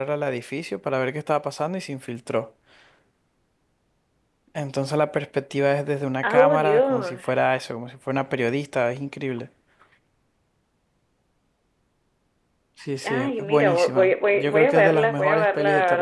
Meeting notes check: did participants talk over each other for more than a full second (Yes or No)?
Yes